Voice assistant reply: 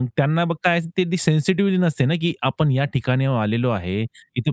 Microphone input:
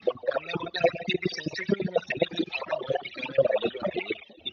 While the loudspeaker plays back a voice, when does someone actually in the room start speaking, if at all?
none

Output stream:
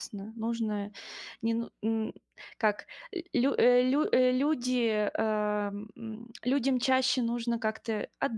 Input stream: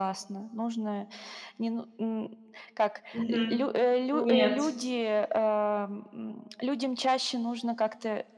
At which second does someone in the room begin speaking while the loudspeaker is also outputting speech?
3.2 s

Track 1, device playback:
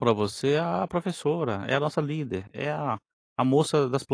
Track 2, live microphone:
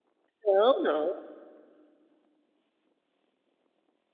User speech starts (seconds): 0.4 s

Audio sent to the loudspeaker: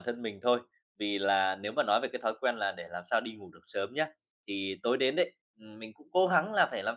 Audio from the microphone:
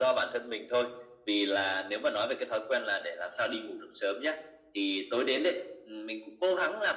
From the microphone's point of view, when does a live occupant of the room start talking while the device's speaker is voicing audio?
none

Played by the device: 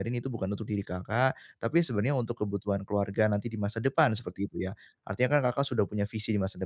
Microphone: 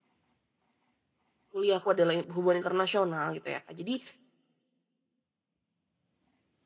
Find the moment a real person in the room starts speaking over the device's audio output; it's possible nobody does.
1.5 s

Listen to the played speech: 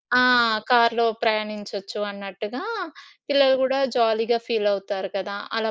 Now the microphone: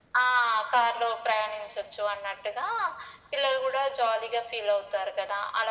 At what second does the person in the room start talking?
none

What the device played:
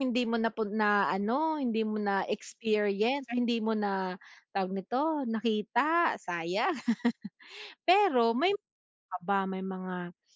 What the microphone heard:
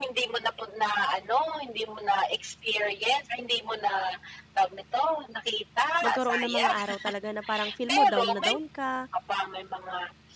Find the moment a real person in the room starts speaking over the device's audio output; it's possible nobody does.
6.0 s

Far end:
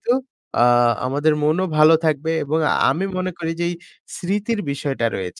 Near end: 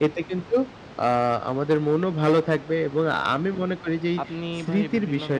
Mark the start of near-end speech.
4.2 s

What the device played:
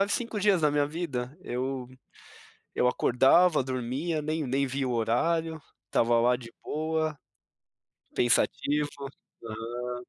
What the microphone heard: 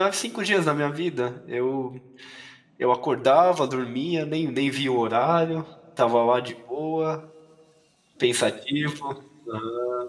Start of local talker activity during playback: none

